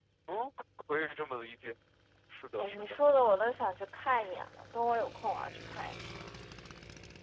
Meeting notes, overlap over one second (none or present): none